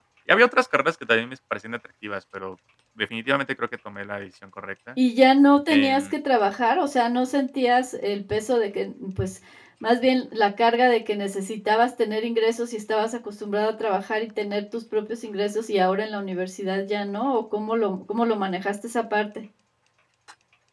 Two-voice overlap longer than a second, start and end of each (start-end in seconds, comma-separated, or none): none